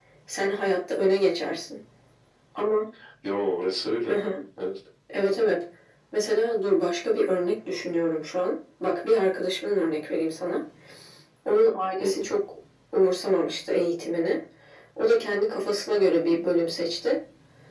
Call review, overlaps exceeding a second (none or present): none